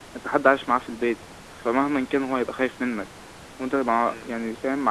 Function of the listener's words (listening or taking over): listening